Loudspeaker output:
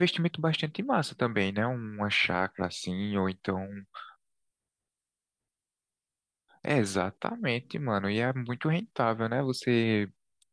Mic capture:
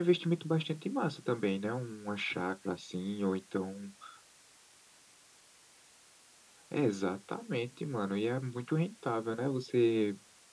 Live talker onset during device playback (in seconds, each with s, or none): none